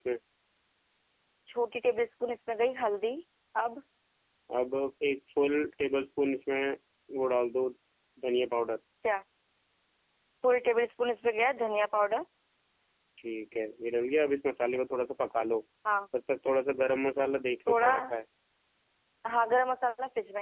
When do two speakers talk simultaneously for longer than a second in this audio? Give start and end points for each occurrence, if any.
none

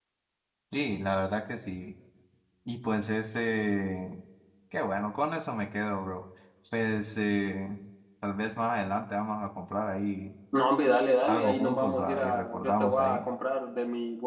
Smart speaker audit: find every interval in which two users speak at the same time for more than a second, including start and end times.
11.2-13.3

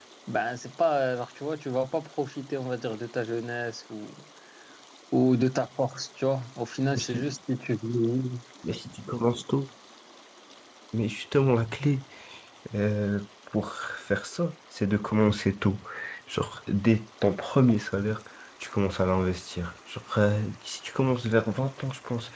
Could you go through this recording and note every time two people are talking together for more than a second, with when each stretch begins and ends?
none

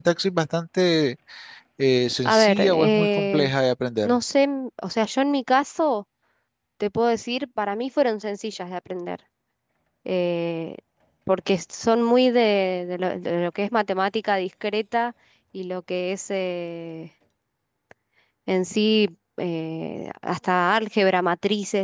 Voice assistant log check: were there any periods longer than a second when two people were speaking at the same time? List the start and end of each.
2.2-3.5

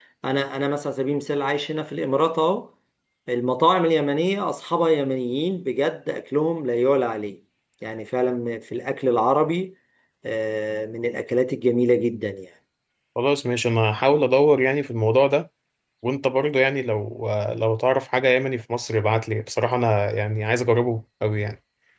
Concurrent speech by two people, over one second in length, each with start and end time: none

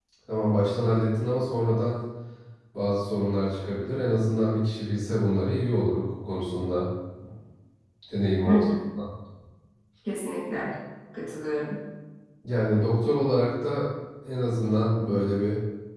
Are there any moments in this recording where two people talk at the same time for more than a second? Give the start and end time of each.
none

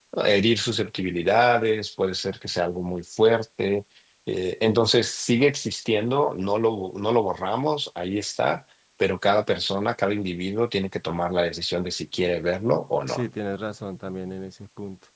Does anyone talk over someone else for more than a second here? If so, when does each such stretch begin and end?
none

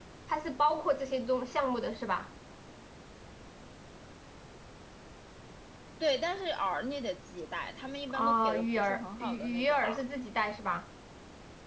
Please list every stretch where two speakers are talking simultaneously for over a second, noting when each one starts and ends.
8.1-10.0

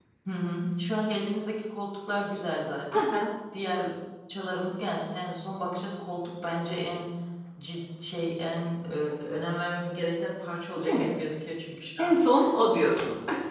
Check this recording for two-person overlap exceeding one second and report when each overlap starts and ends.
none

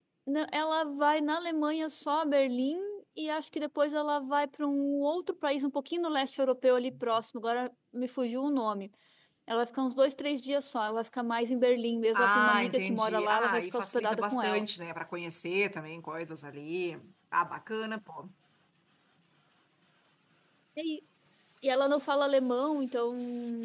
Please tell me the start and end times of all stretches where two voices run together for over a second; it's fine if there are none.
12.2-14.6

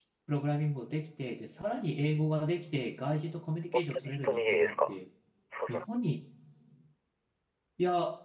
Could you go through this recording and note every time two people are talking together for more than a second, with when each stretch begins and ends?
3.7-4.9

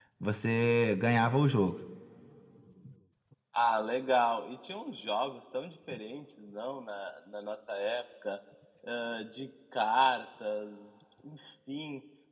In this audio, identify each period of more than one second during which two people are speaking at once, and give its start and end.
none

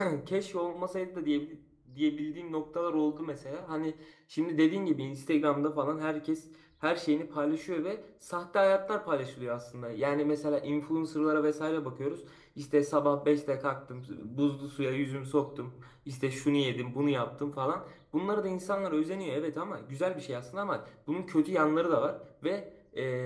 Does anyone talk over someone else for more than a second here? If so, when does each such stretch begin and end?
none

